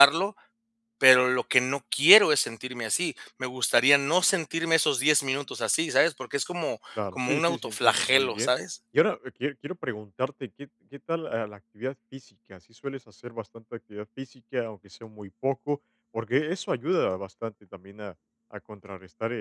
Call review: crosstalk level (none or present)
present